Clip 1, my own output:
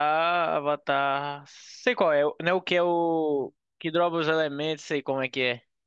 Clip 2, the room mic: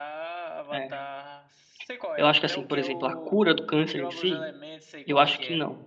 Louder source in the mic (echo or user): user